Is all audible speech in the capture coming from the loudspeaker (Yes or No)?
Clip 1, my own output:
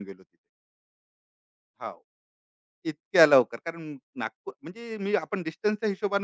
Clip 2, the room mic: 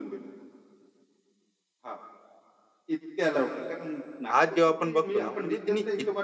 No